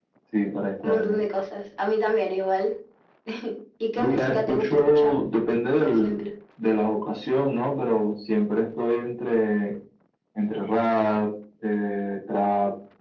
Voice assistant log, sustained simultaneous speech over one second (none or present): present